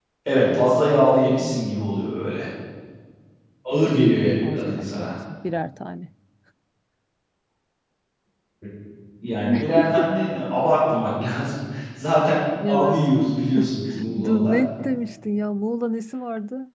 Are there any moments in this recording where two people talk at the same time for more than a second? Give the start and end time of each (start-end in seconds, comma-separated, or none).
3.7-5.1